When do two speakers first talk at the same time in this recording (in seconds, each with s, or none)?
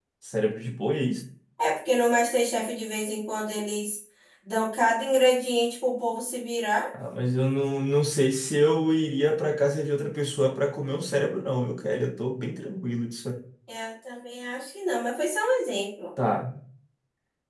none